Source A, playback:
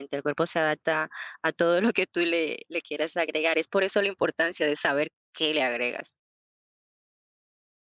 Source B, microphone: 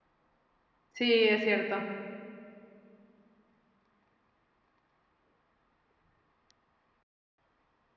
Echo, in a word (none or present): none